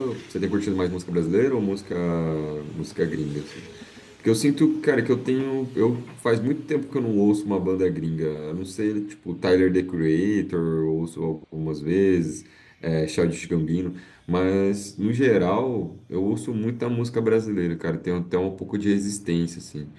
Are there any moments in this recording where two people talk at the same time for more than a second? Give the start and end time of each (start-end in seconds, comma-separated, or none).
none